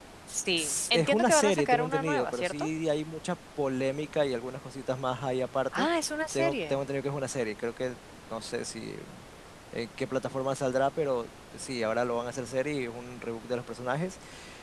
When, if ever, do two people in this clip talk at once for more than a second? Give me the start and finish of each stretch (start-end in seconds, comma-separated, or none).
0.6-2.7